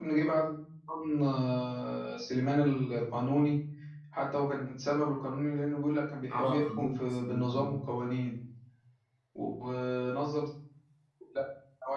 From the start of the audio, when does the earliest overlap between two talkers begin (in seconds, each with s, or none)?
6.3 s